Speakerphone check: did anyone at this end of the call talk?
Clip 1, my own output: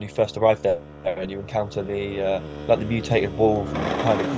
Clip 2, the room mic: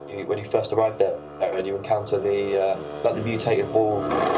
No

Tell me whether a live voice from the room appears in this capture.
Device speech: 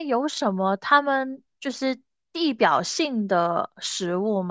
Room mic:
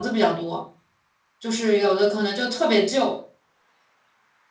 Yes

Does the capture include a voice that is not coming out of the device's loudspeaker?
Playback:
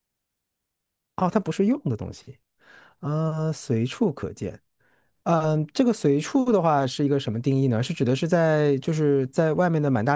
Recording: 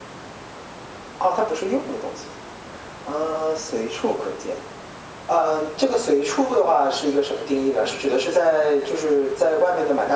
No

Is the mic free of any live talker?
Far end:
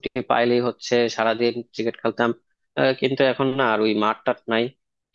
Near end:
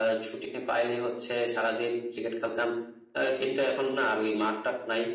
Yes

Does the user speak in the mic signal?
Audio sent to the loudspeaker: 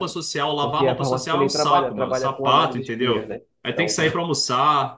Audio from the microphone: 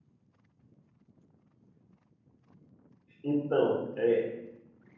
Yes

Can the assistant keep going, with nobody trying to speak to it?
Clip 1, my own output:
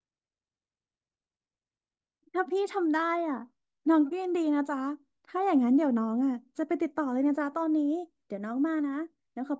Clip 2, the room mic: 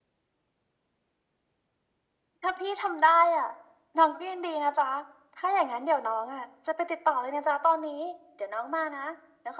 Yes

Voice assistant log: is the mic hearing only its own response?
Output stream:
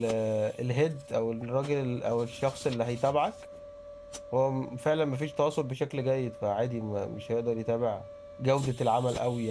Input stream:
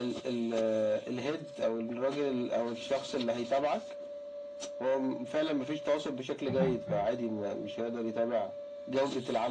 No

